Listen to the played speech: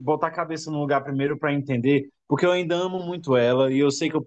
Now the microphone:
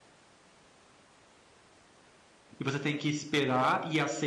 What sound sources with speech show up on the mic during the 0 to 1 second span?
neither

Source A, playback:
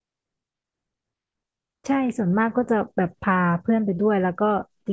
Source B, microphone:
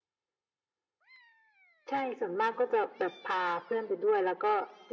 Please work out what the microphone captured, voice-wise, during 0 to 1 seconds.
neither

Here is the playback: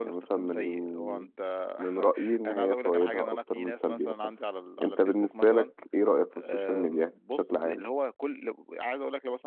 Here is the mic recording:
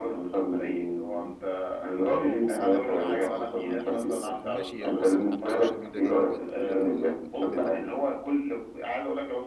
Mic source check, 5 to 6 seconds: both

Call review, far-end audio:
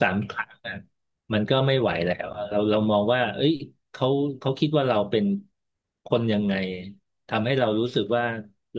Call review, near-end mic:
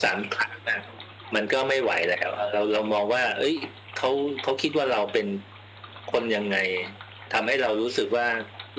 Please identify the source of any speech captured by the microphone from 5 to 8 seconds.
echo only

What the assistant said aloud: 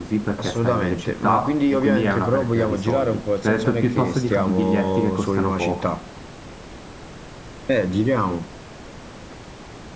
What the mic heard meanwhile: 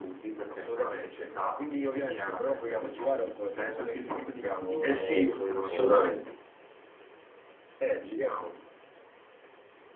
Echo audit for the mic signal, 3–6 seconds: both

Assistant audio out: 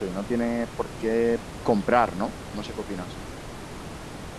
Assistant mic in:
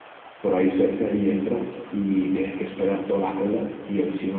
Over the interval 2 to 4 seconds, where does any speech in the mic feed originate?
user only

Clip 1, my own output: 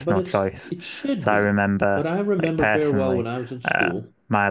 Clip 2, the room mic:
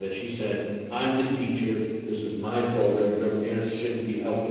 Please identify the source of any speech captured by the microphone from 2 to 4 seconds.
user only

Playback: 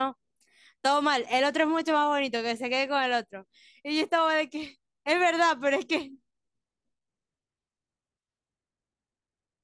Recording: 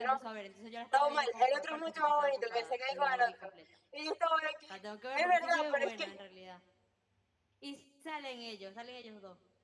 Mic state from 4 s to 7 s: both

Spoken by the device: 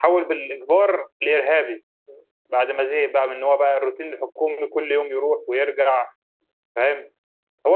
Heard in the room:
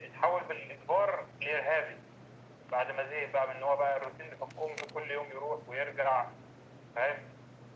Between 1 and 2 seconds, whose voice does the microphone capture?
echo only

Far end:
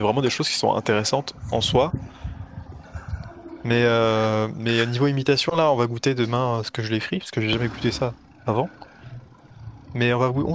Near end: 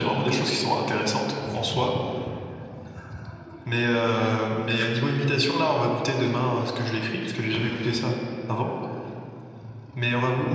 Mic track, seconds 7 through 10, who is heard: echo only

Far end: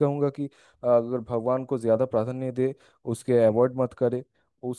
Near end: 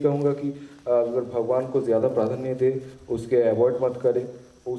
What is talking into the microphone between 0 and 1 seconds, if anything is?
echo only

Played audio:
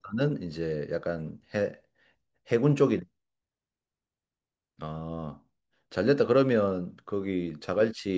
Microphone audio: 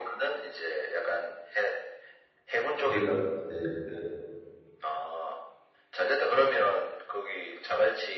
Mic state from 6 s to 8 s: echo only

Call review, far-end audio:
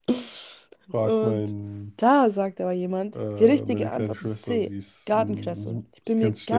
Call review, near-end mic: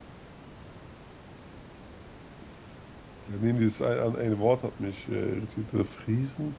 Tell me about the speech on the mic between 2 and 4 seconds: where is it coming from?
user only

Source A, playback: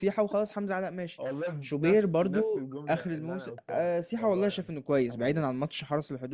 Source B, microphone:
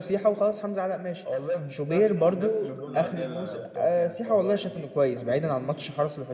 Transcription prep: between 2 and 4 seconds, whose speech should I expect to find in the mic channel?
both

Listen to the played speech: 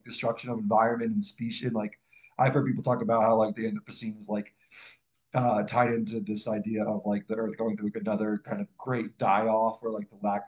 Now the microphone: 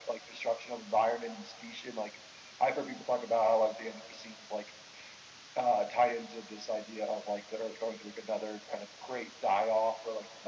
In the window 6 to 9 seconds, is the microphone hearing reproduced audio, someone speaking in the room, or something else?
echo only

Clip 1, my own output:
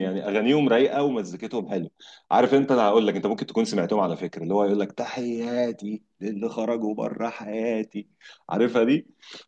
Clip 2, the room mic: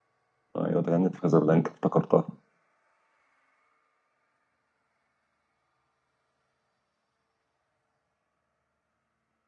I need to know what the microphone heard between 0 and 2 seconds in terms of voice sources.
user only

